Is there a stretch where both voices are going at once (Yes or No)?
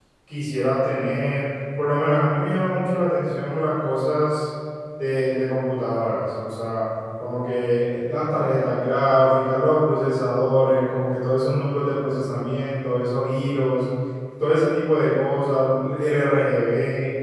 No